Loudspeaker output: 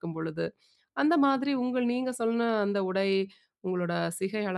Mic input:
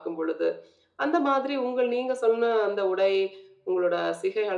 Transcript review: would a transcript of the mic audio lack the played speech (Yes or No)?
No